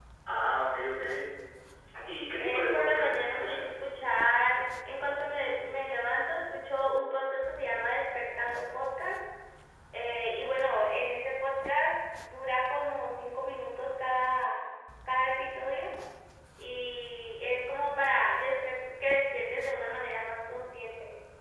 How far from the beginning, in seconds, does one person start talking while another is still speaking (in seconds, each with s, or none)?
2.4 s